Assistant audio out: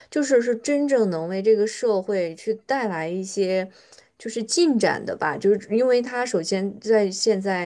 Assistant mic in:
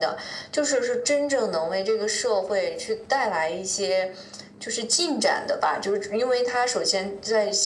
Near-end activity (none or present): none